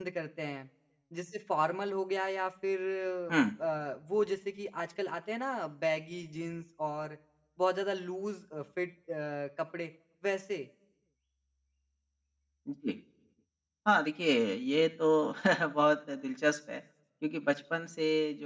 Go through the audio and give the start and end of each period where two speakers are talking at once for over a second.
none

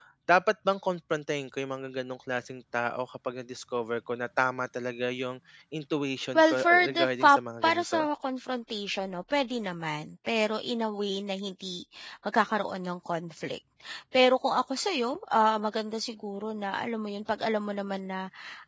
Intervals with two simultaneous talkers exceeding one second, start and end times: 6.3-8.0

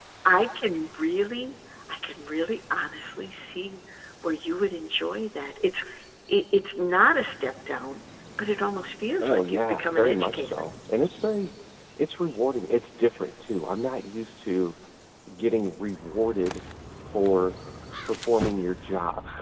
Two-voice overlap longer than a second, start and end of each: 9.2-10.5

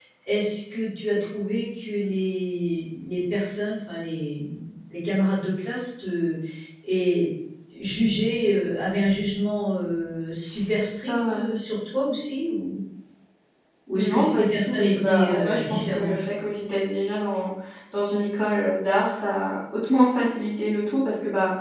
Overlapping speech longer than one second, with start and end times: 13.9-16.1

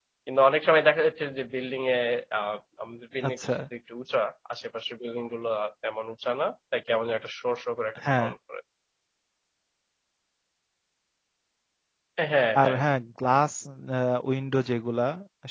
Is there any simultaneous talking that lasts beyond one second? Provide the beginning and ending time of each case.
none

